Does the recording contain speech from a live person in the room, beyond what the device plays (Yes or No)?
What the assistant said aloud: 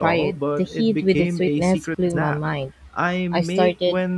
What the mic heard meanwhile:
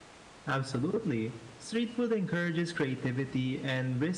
Yes